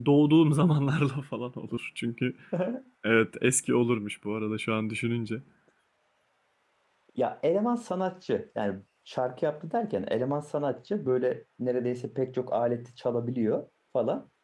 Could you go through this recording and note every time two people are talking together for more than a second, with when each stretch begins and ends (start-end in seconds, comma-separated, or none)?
none